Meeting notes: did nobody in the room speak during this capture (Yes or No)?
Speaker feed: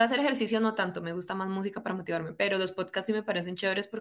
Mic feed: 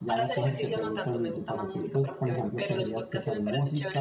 No